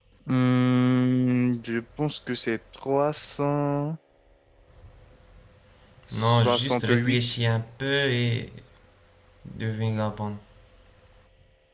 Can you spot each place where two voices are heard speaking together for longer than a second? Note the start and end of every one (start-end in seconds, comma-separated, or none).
6.1-7.4